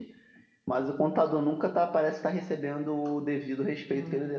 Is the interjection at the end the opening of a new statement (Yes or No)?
No